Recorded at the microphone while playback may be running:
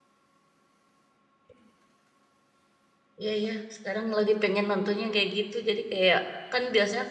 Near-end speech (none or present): present